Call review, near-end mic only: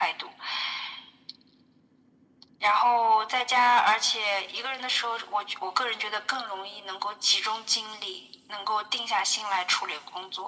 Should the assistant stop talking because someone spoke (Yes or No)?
No